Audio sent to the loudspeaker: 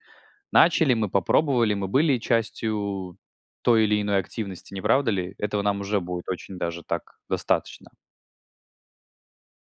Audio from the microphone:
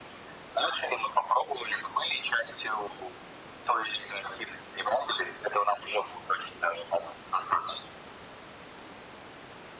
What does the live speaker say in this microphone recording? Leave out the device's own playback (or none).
none